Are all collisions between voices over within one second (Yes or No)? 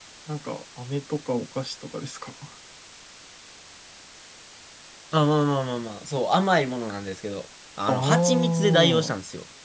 No